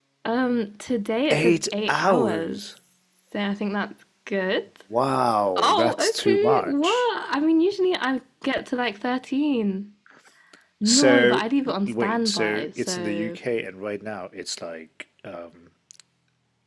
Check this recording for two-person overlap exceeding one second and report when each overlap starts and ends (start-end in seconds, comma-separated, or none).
1.3-2.6, 5.6-7.1, 10.8-13.4